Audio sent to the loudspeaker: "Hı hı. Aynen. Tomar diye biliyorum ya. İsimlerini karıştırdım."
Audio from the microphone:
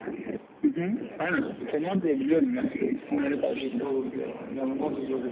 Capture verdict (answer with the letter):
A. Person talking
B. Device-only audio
A